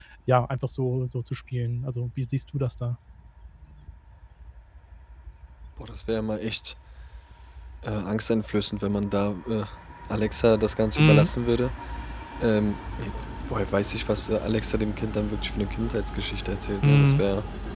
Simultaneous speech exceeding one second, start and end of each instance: none

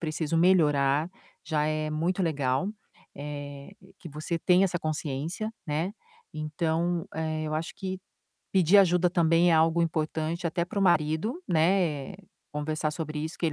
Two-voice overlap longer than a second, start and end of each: none

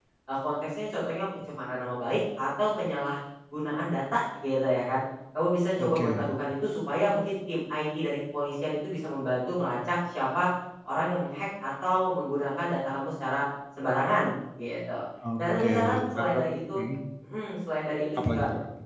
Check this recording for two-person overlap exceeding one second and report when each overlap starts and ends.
15.4-16.9

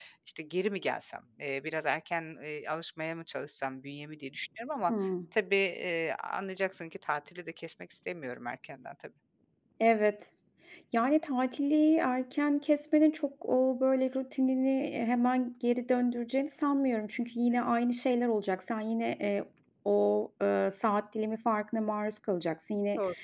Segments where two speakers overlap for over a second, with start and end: none

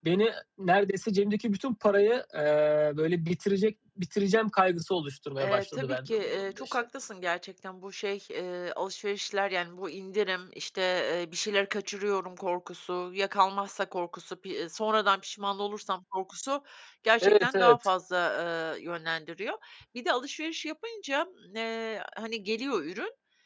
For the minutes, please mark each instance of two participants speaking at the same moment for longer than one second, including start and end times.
5.4-6.8

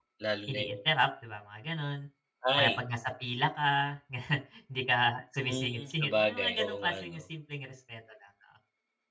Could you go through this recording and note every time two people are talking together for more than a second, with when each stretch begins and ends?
5.5-7.2

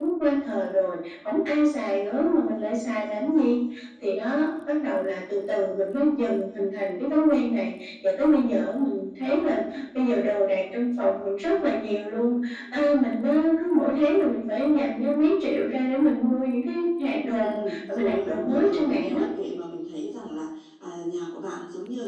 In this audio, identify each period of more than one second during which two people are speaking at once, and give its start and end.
17.2-19.2

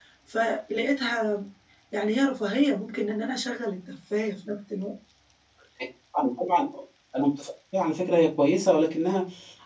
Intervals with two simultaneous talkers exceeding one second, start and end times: none

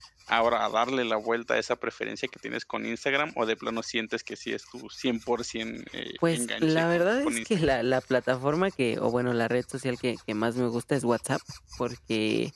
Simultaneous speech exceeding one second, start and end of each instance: 6.3-7.7

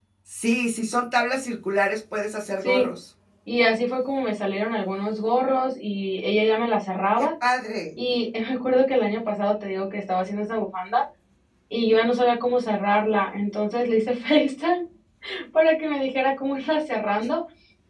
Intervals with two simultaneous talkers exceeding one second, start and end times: none

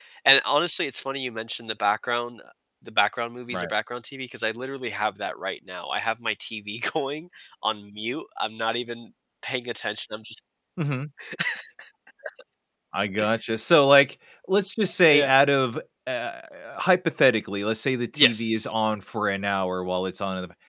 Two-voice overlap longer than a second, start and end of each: none

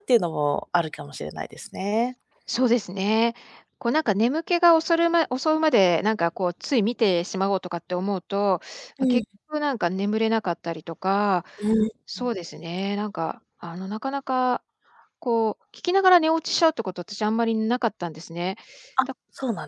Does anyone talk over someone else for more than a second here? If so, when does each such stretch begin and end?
none

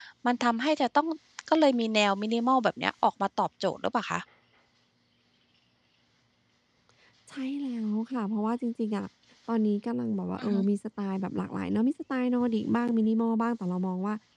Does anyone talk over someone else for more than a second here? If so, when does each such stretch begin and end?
none

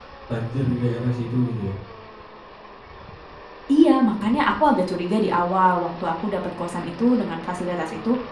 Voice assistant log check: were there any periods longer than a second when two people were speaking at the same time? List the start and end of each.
none

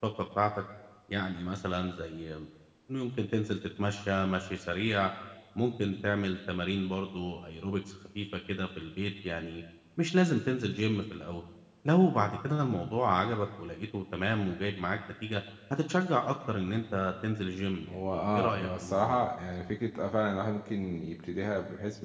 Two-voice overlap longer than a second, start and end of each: 17.9-19.2

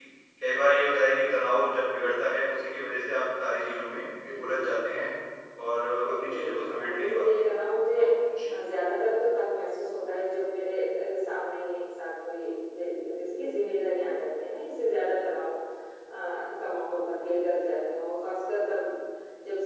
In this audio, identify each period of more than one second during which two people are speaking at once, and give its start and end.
6.0-7.6

